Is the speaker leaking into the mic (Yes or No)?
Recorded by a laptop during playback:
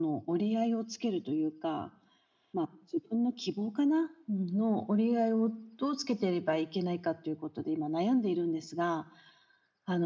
Yes